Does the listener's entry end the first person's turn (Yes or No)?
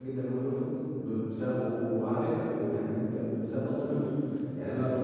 No